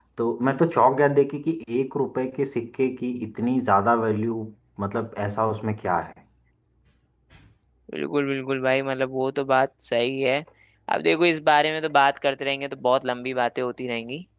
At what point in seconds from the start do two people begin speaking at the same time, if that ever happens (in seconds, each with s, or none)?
none